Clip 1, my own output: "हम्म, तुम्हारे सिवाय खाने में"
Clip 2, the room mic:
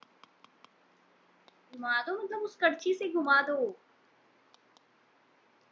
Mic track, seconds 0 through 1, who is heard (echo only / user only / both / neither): neither